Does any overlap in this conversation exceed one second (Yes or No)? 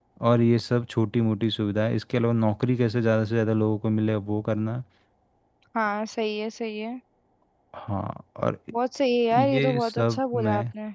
Yes